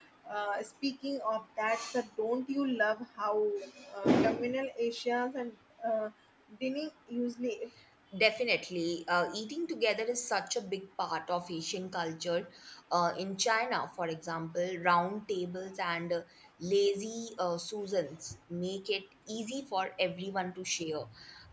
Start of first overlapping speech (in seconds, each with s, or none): none